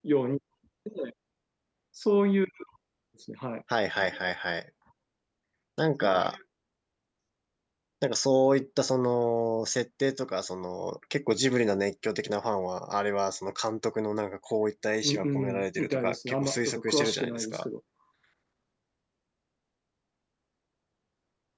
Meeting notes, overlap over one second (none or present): present